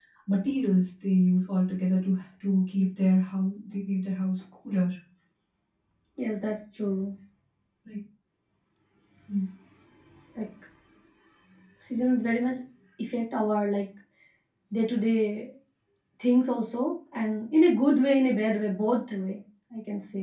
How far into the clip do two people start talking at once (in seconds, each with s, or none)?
none